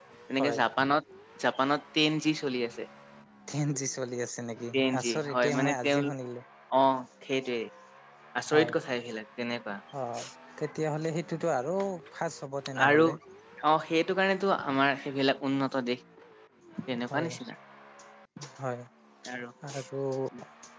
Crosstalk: present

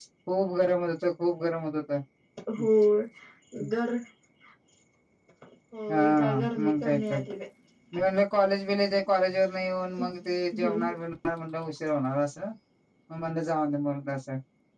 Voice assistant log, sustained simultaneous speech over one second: present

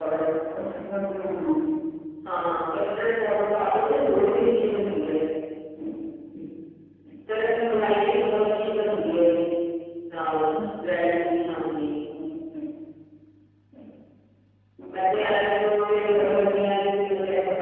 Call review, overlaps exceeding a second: none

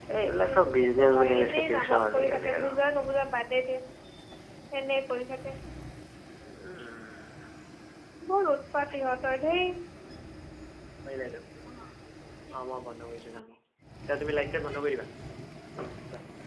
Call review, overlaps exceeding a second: present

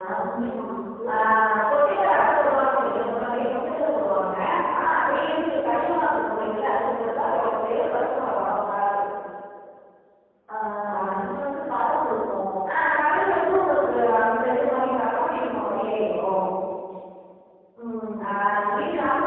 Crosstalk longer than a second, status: present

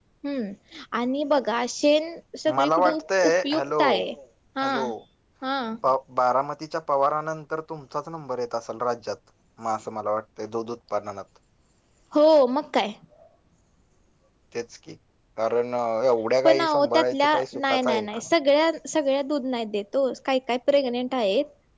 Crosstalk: present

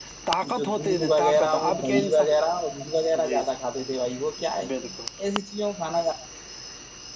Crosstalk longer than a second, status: present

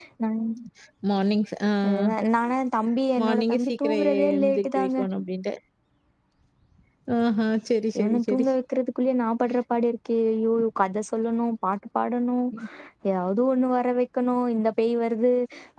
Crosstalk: present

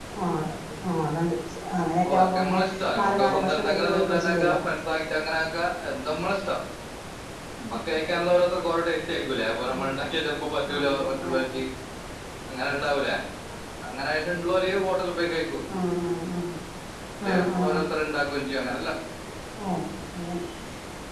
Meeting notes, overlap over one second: present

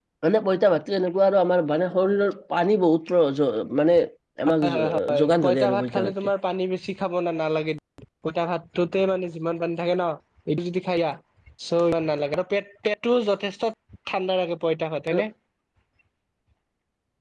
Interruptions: present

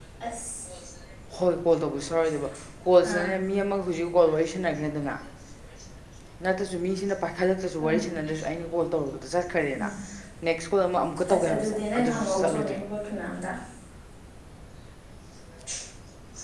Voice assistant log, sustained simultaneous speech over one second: present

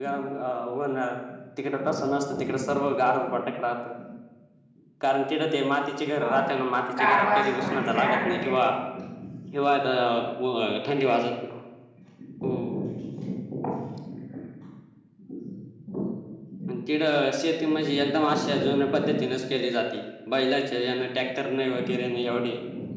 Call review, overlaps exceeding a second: present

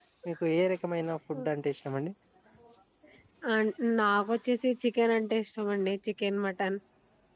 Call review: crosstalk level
none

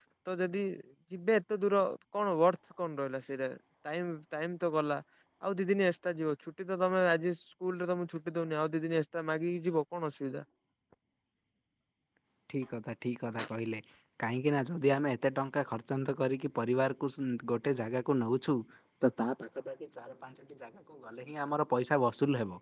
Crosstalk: none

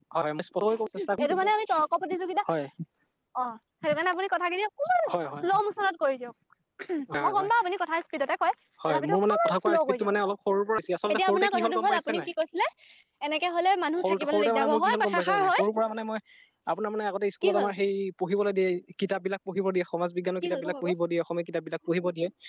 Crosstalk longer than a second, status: present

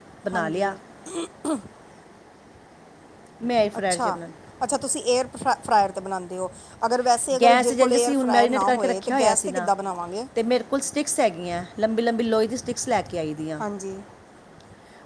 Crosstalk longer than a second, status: present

